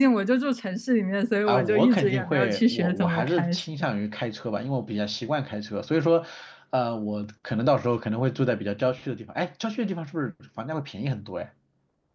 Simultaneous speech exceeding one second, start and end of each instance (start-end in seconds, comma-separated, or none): 1.5-3.6